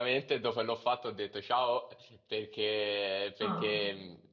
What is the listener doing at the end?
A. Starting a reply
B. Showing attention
B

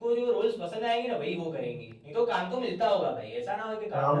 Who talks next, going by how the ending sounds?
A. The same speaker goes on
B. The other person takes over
B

